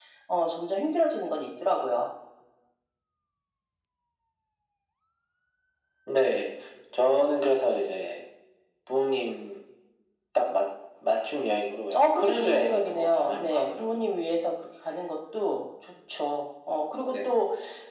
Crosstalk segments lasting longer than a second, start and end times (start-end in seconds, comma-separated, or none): 12.1-14.1